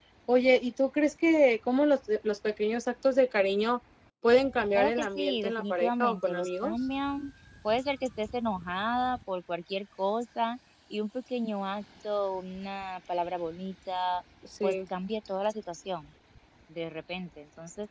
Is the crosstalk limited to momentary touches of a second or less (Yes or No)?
No